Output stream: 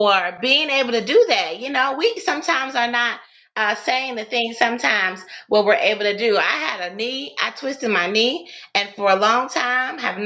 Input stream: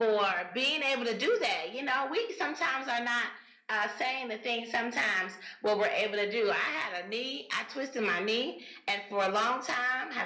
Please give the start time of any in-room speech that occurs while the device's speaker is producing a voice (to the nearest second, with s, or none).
none